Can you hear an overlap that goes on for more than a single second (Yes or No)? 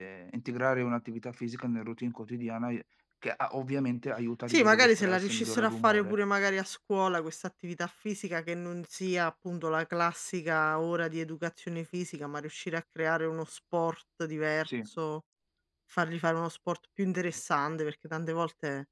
Yes